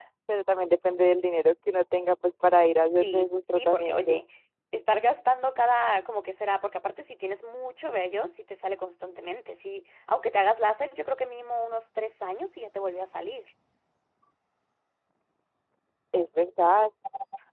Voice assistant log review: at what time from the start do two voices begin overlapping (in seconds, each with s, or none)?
3.0 s